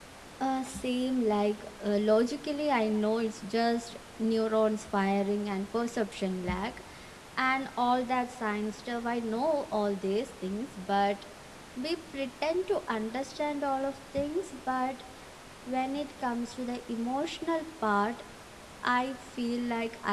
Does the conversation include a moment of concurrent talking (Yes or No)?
No